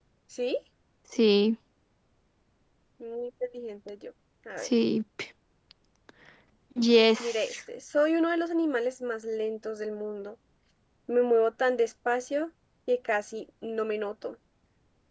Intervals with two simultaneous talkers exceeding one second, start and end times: none

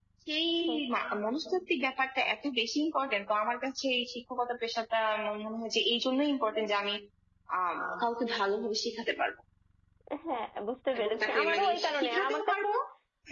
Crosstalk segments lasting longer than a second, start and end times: 11.0-12.7

